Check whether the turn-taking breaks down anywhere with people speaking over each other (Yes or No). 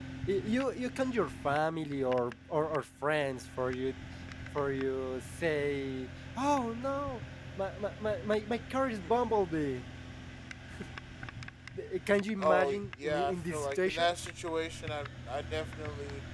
Yes